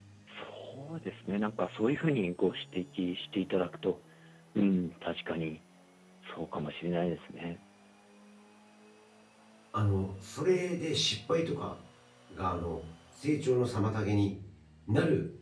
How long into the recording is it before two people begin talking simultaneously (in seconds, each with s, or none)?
none